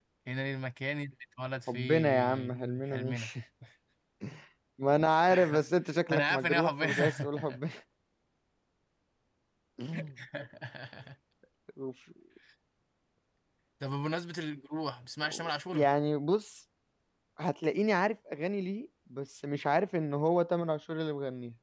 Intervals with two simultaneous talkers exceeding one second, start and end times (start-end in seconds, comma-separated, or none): 1.7-3.2, 6.1-7.6